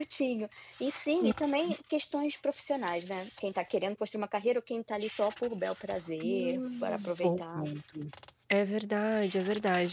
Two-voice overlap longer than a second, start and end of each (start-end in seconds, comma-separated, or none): 6.2-7.7